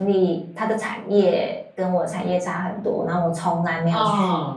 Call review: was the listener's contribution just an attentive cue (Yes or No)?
Yes